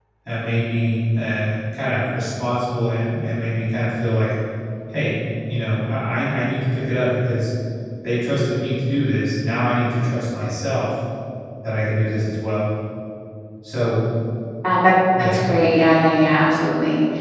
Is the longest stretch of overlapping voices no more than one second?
Yes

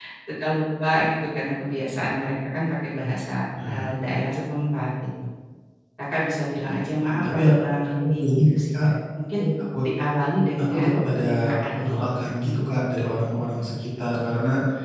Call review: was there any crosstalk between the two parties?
Yes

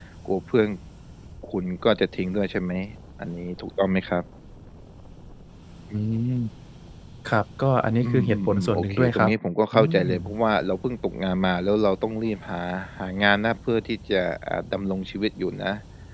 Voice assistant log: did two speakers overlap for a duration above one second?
Yes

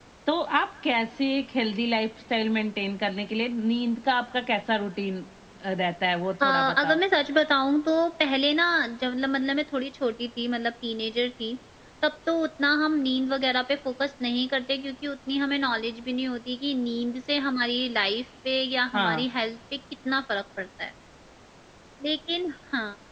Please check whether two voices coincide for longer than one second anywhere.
No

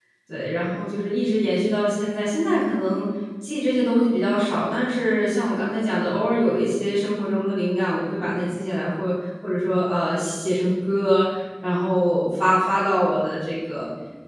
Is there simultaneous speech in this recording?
No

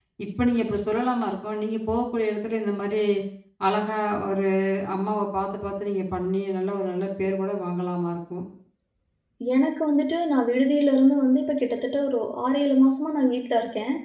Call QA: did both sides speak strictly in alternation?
Yes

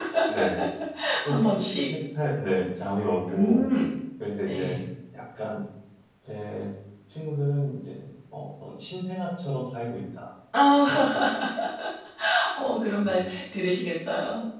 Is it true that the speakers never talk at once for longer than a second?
Yes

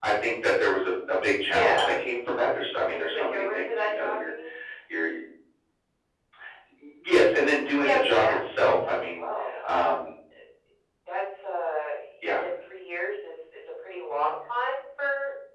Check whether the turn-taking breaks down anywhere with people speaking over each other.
Yes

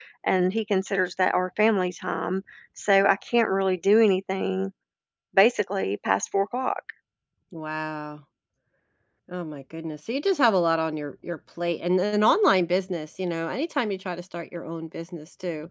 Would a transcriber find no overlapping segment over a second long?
Yes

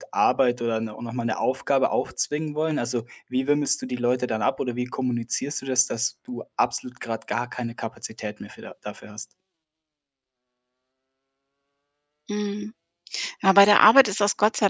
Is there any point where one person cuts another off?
No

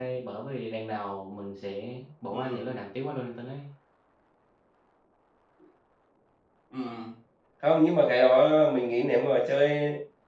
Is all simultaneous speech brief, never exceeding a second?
Yes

